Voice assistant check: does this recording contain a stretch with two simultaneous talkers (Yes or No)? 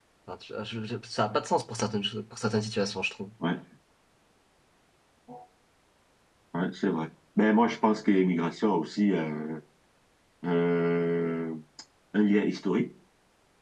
No